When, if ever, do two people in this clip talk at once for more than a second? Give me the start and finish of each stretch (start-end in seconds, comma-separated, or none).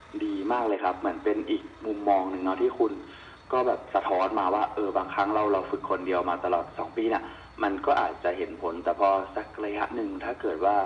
none